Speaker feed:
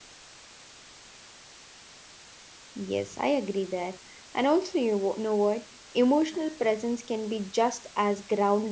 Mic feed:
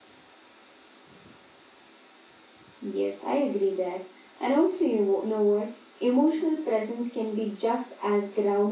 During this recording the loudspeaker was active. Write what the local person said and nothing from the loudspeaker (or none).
none